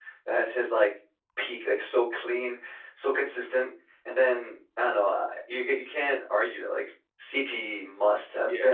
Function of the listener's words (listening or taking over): taking over